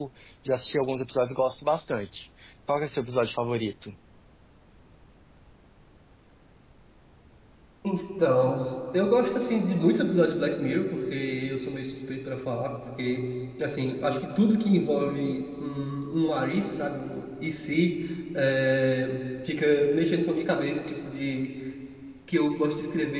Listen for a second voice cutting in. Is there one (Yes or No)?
No